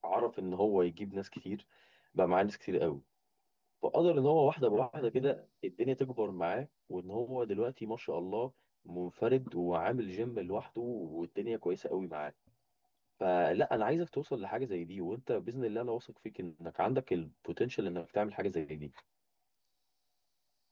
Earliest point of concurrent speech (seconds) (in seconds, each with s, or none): none